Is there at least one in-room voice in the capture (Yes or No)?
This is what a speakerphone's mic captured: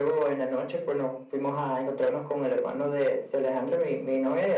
No